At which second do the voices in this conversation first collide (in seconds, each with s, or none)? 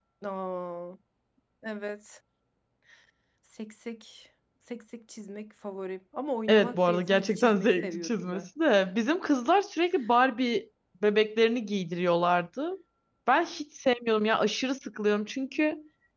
6.5 s